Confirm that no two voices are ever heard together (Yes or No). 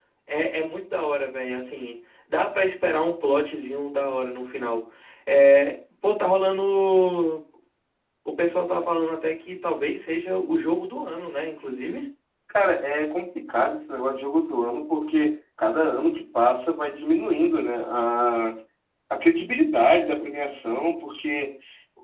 Yes